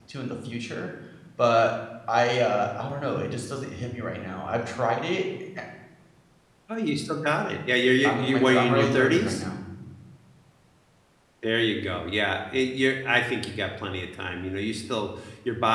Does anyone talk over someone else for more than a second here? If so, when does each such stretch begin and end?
8.0-9.4

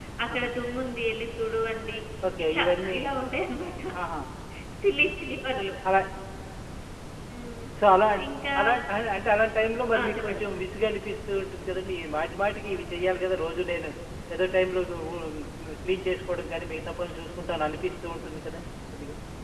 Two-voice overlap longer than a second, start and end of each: none

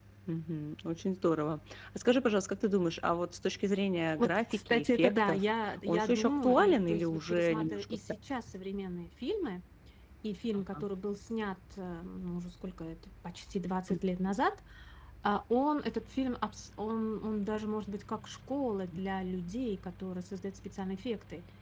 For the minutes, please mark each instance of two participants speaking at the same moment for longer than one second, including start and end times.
4.2-5.4, 5.9-7.8

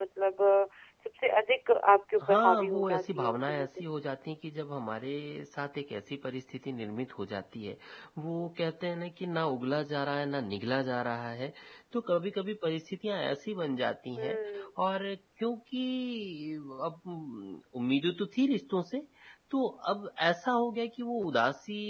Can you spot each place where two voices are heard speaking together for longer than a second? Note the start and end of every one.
2.2-3.8

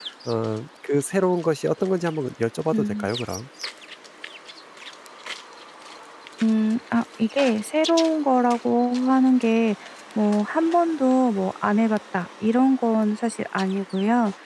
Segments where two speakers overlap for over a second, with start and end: none

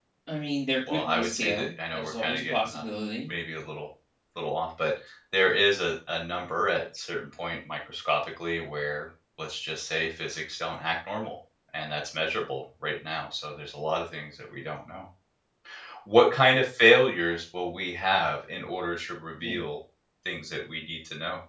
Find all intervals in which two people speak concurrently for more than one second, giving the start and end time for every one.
0.9-2.8

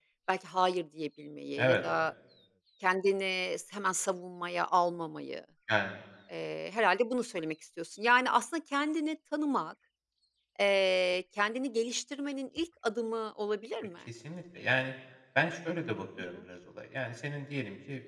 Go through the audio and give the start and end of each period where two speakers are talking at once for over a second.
none

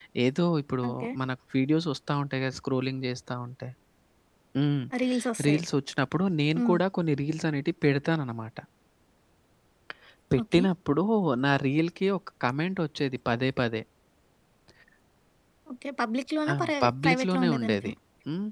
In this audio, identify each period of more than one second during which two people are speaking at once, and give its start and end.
16.5-17.9

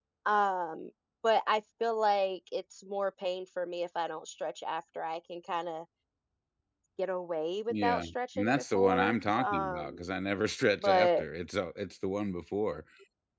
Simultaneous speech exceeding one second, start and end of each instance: 7.7-10.0

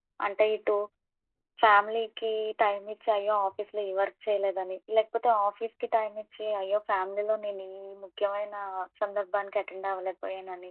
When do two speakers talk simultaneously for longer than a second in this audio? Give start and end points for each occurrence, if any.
none

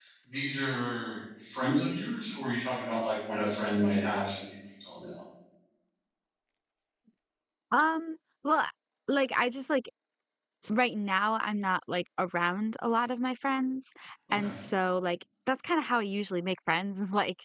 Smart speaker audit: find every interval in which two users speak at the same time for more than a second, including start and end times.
none

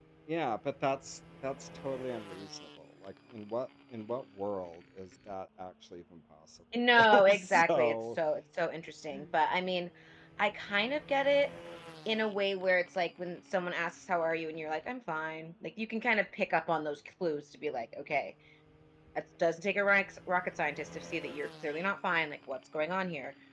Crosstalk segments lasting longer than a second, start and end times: 6.9-8.2

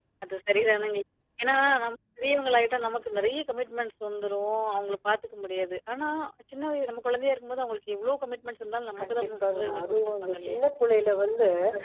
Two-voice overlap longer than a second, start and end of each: 9.0-10.6

